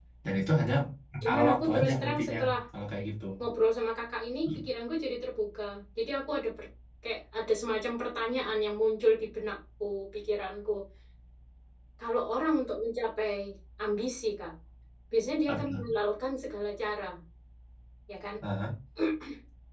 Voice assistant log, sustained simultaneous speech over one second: present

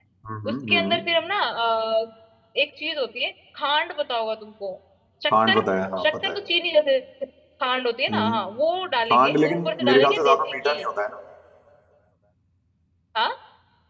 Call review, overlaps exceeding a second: present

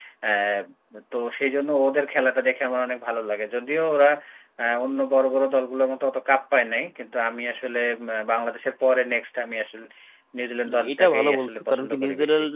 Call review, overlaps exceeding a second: present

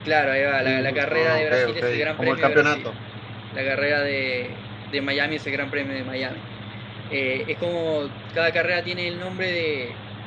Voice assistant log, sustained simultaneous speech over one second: present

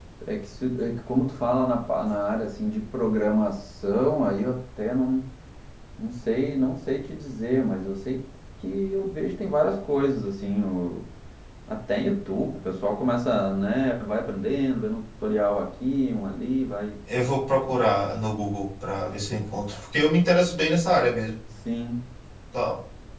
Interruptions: none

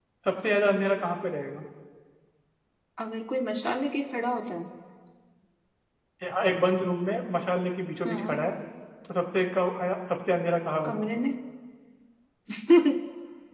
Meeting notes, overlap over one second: none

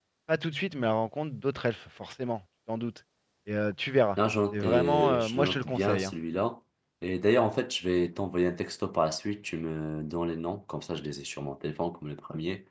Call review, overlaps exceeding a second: present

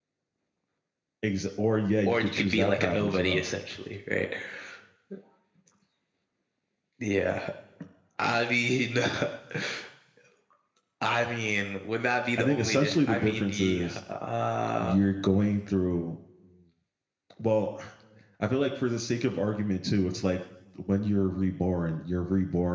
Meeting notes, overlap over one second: present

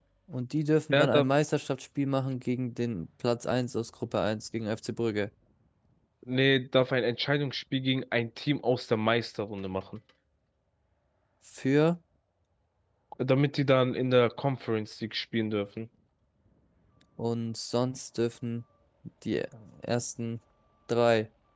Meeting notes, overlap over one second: none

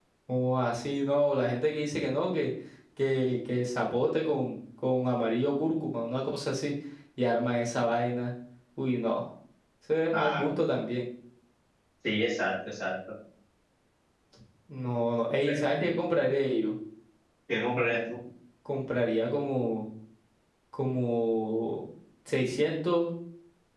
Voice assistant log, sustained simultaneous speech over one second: none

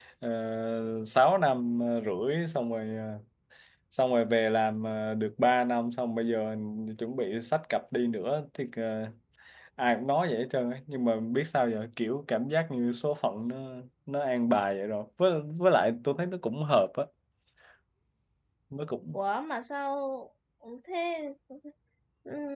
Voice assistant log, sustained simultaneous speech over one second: none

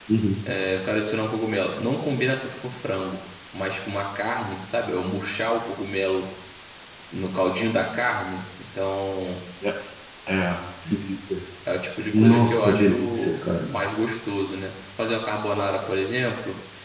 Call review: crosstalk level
present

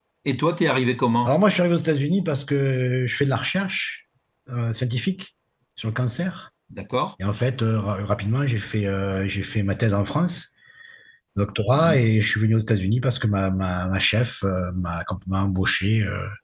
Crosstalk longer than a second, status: none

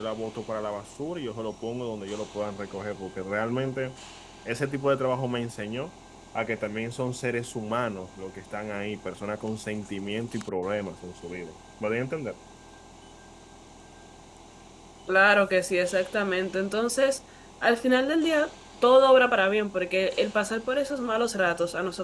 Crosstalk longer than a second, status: none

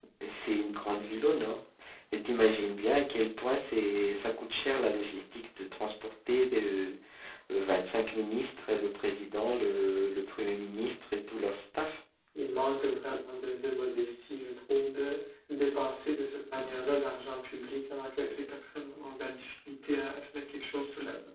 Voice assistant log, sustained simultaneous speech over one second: none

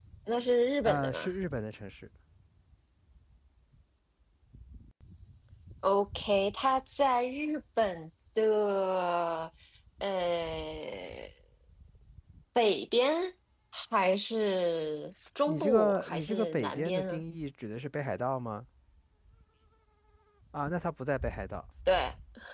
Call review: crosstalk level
present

